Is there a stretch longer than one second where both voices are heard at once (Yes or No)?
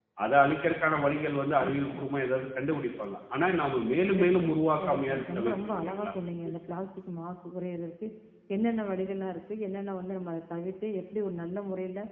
Yes